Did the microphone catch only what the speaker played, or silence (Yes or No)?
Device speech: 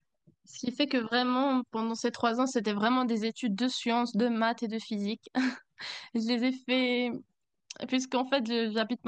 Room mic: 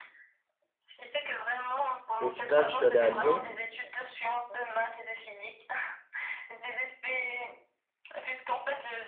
No